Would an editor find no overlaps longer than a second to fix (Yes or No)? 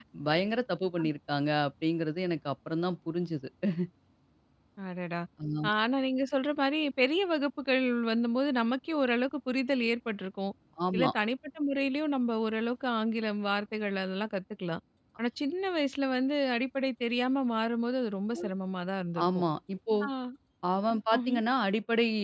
Yes